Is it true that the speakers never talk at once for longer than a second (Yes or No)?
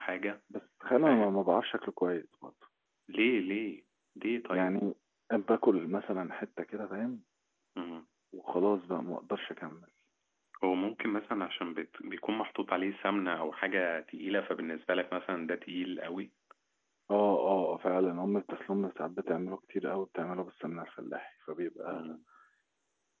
Yes